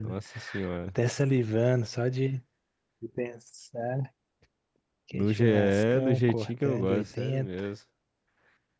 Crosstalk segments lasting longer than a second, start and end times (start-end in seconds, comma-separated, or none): 5.1-7.6